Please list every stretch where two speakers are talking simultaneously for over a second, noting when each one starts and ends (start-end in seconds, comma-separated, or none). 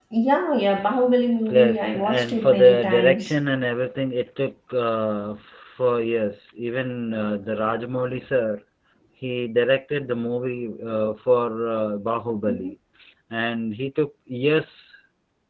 1.5-3.3